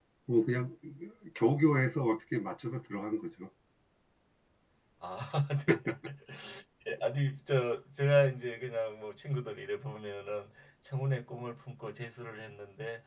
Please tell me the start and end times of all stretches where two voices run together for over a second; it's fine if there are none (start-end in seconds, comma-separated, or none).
none